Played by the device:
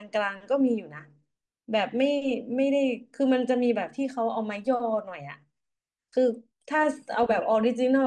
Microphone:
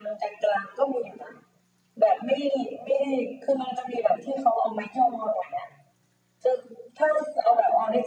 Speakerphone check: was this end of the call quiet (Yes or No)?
Yes